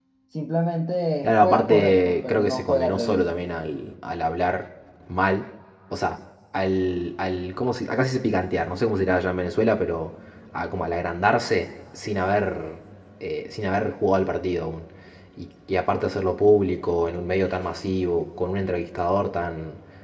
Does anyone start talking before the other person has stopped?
Yes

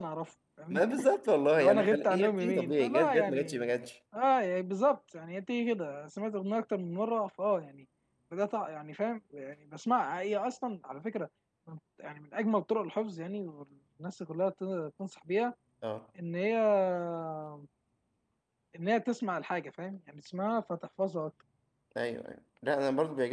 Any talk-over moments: Yes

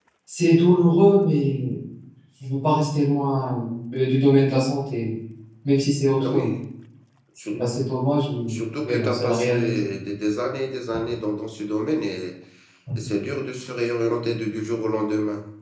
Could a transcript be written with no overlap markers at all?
No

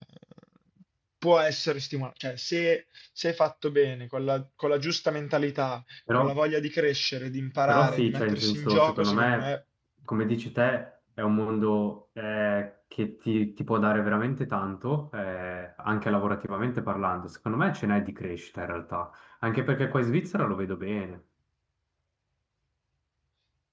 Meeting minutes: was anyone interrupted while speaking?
Yes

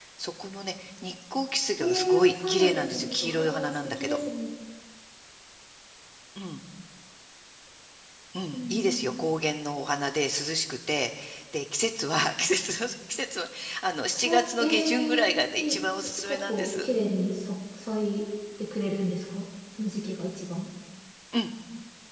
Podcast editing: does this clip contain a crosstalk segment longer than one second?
Yes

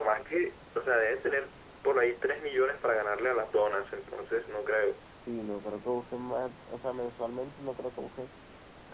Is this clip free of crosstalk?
Yes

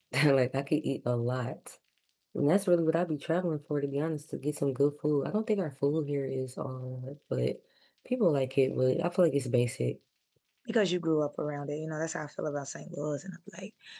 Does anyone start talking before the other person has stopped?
No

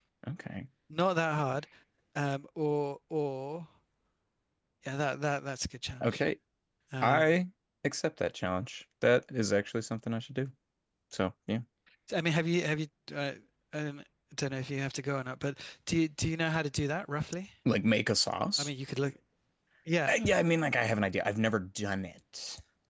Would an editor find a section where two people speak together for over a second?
No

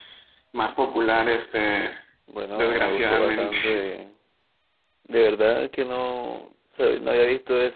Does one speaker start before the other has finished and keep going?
Yes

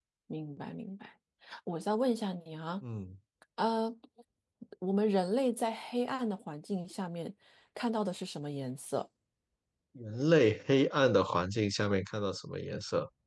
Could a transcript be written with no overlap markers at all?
Yes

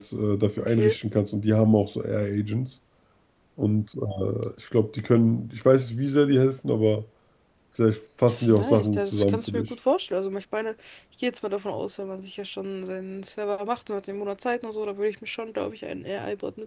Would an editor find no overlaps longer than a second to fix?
No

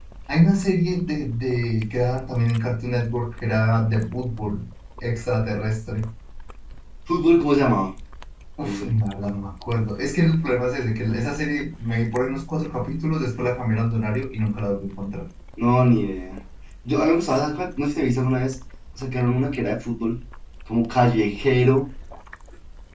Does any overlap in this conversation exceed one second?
No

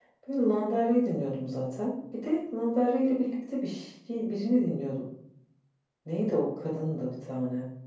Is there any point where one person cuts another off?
No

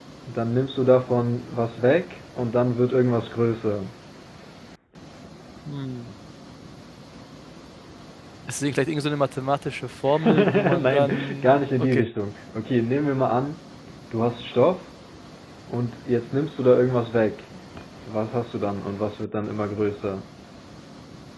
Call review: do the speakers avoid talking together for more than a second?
No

